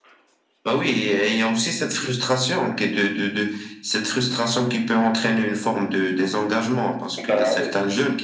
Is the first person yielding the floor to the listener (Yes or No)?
No